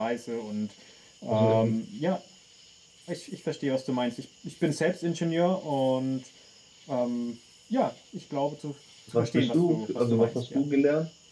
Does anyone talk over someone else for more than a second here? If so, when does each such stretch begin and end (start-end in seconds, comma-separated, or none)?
9.1-10.6